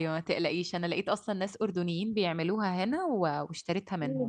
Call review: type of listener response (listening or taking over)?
taking over